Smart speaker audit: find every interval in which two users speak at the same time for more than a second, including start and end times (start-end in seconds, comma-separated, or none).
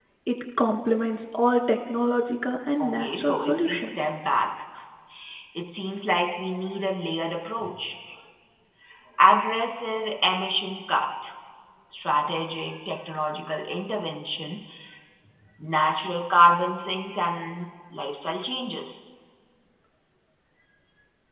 2.8-4.0